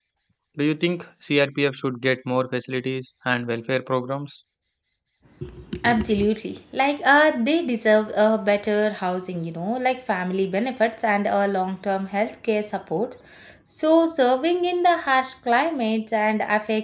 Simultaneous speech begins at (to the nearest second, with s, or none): none